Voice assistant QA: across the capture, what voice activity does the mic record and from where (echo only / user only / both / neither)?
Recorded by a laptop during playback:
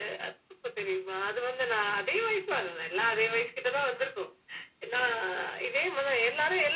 echo only